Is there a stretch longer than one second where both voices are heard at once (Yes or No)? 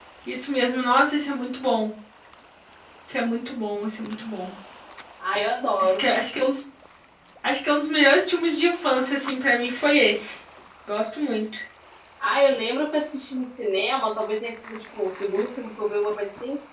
No